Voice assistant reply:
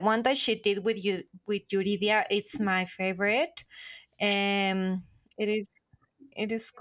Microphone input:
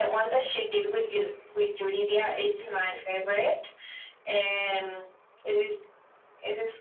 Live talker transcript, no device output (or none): Maybe it could be.